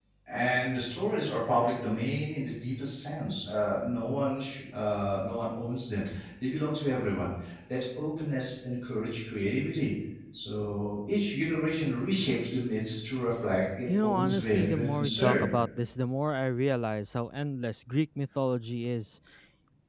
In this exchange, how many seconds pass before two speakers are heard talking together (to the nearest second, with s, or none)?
14 s